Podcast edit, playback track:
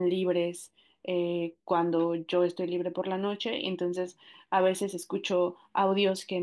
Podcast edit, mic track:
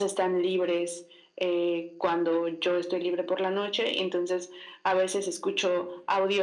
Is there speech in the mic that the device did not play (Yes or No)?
No